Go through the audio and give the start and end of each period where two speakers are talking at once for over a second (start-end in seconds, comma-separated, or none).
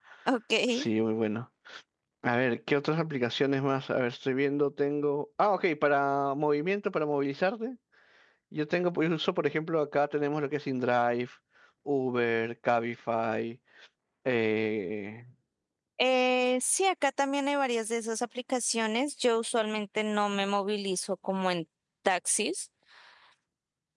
none